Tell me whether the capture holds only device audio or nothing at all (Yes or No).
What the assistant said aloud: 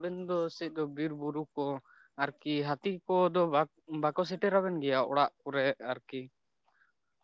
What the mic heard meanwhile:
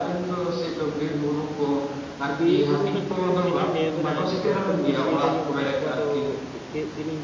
No